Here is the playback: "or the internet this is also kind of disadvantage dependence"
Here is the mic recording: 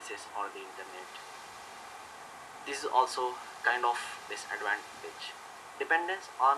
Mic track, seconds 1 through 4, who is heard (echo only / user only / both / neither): echo only